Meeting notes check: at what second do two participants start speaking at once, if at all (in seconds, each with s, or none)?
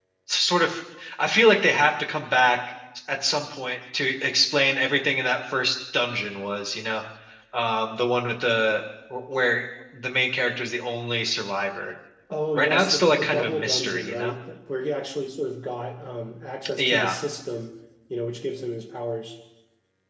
12.6 s